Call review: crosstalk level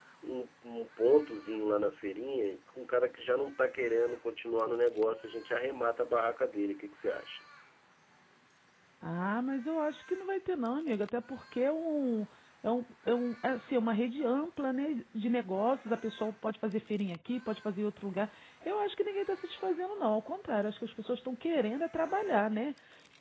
none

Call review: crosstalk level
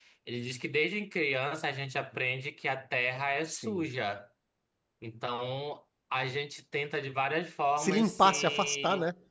present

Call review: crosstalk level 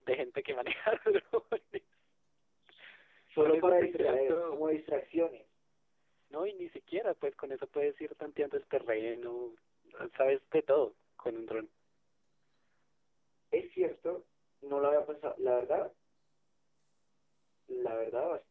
present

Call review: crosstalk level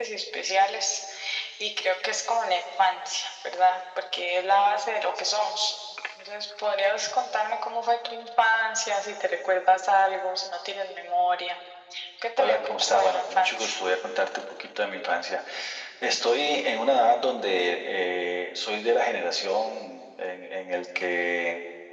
present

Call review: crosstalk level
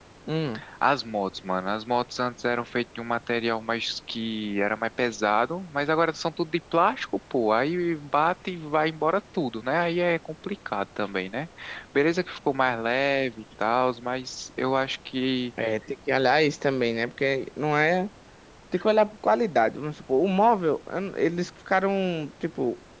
none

